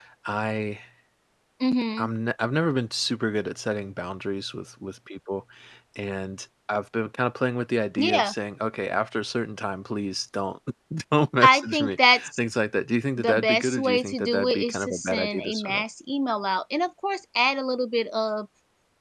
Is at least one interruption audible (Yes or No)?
Yes